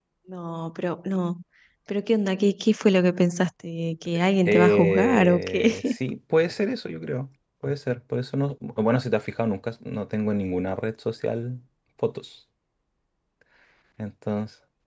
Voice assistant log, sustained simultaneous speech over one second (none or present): present